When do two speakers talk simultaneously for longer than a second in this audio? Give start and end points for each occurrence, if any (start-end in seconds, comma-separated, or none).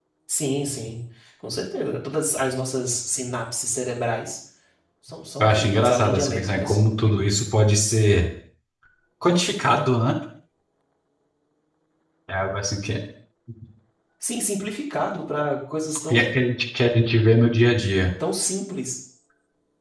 5.4-6.8